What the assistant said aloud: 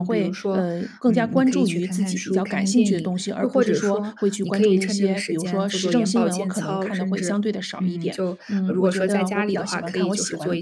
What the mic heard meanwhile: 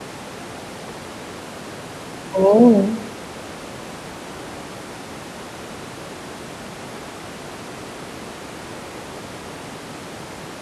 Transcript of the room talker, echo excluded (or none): 哦，